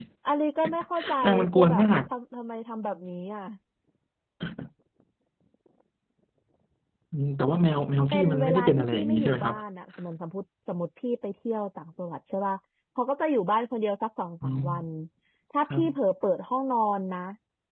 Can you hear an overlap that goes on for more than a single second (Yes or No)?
Yes